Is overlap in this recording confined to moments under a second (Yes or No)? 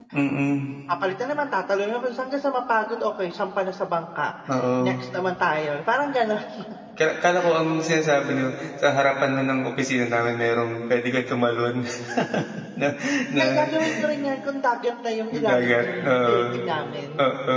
No